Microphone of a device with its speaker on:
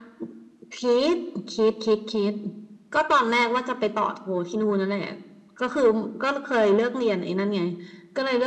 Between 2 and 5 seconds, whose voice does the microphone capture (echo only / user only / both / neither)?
echo only